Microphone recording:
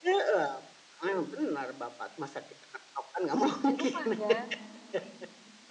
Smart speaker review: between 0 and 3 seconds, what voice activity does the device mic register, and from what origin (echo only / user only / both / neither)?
echo only